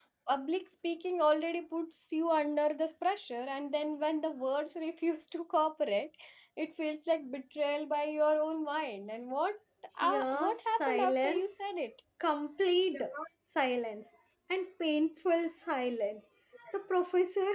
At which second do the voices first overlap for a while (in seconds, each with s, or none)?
10.0 s